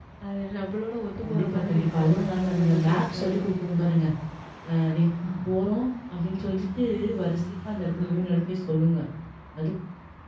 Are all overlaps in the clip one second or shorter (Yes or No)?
No